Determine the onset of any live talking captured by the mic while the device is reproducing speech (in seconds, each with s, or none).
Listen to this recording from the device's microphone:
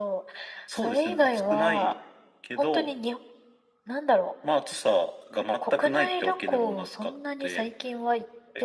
none